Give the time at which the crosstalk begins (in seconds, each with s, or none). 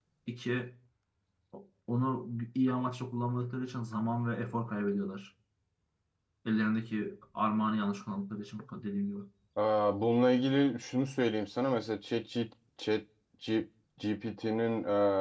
none